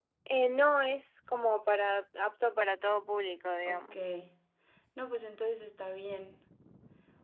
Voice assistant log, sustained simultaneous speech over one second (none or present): none